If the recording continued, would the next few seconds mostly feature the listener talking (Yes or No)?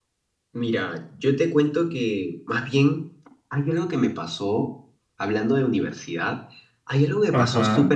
No